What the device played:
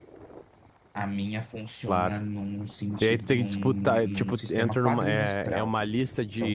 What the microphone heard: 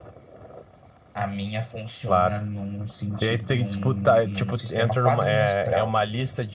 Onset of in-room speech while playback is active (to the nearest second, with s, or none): none